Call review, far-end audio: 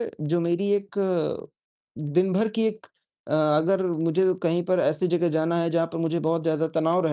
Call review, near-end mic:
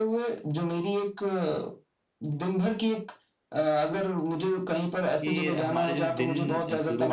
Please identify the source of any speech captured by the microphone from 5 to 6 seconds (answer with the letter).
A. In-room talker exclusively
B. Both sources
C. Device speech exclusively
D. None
B